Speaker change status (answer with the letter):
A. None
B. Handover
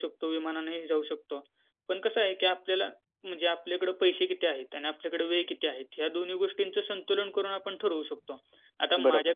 A